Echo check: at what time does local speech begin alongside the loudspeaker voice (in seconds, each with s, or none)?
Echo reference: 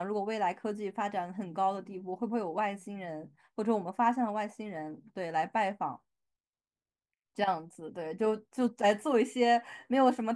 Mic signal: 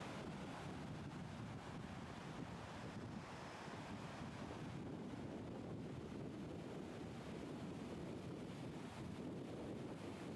none